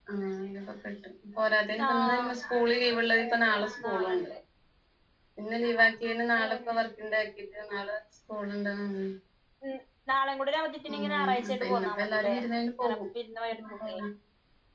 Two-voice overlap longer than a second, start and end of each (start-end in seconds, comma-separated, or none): 10.9-12.4